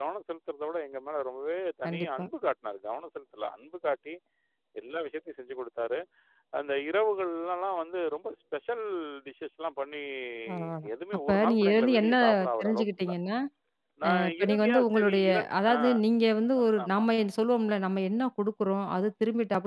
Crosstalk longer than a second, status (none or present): present